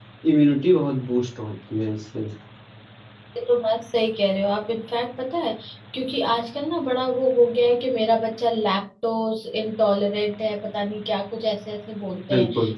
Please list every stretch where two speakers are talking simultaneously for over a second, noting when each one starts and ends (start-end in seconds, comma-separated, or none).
none